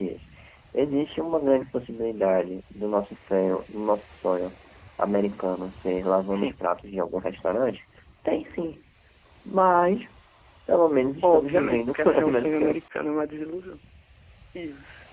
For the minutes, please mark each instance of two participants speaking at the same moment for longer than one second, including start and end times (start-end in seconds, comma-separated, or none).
11.2-12.8